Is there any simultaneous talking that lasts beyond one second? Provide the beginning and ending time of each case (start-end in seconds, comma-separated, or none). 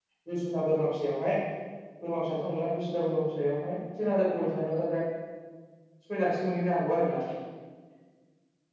none